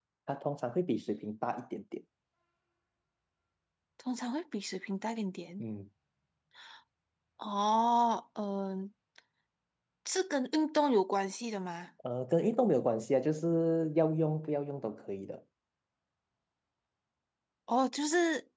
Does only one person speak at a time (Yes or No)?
Yes